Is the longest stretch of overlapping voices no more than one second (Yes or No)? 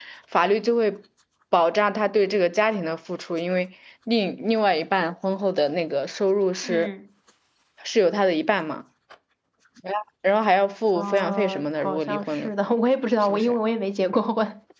No